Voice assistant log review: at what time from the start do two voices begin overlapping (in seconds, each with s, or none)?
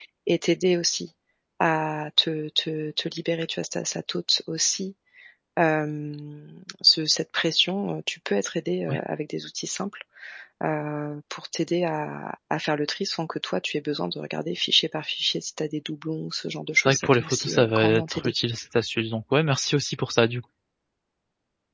16.8 s